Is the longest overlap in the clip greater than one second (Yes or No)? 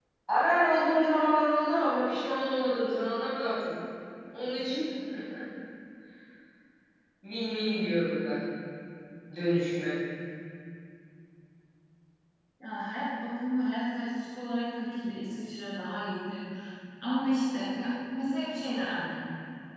No